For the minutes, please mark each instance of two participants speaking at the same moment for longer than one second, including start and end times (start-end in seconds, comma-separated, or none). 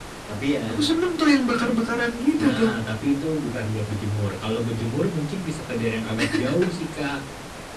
none